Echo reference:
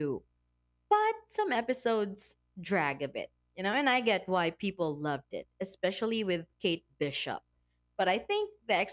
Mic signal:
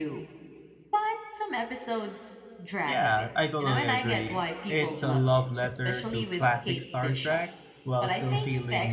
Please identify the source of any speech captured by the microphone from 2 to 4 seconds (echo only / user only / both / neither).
both